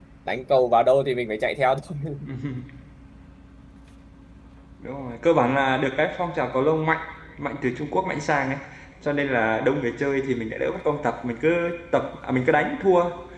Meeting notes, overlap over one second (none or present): none